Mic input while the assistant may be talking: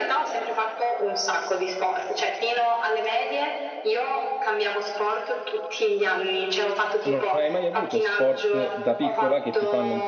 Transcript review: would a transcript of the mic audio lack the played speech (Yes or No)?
No